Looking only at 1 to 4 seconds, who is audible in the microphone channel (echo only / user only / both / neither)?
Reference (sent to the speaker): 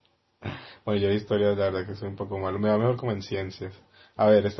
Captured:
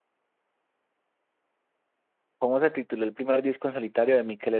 user only